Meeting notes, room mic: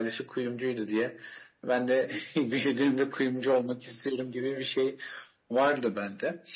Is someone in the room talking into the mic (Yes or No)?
No